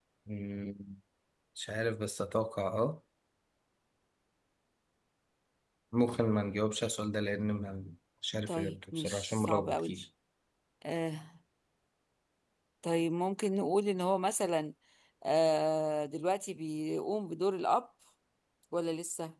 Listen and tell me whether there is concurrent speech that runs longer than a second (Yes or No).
Yes